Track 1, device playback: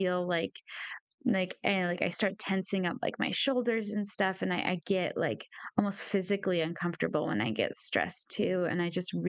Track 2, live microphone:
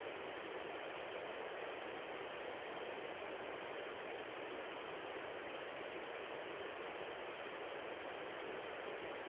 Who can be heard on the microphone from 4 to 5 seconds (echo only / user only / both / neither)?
neither